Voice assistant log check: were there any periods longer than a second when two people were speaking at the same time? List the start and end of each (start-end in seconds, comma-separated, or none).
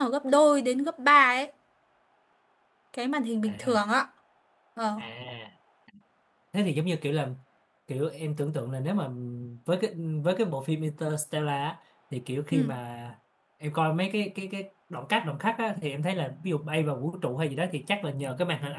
none